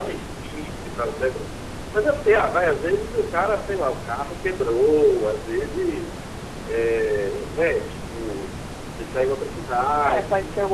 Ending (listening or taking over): taking over